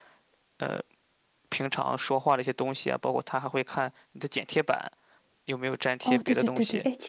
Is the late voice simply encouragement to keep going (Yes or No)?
No